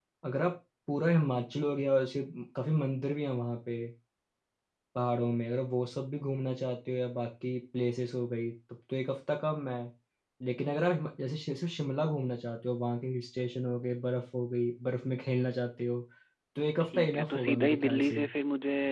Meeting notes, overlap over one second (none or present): present